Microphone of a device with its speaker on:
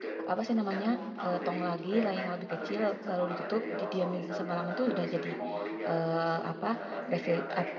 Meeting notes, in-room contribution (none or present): present